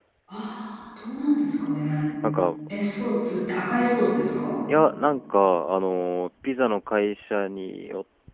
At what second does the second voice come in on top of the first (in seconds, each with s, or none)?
none